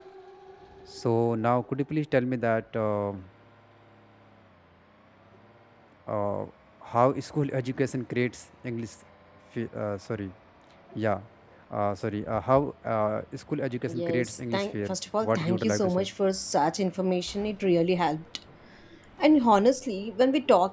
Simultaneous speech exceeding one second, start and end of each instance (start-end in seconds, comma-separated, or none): 13.9-16.1